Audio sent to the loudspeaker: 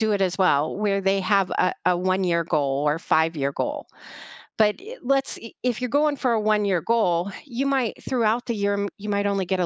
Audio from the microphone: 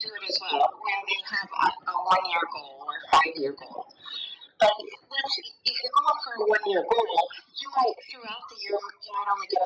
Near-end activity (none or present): none